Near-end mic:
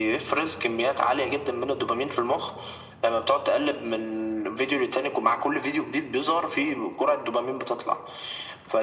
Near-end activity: none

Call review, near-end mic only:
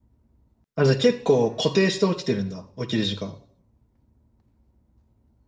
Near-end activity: present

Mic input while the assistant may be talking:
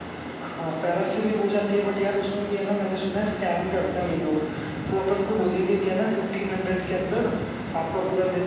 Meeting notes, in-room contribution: none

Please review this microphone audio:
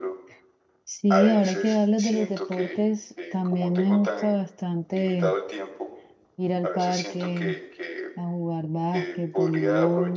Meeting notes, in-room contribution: present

